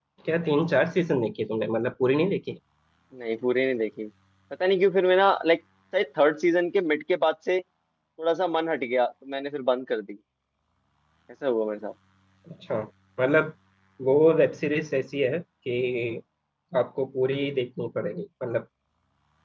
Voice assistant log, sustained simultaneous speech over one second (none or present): none